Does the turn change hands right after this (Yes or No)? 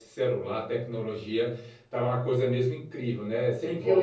Yes